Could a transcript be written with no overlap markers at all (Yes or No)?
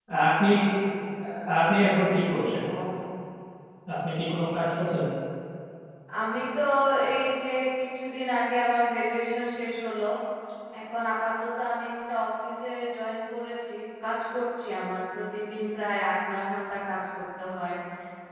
Yes